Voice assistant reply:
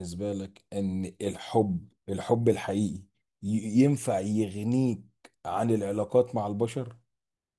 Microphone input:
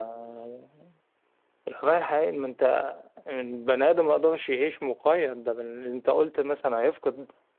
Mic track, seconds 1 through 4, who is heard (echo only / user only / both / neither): user only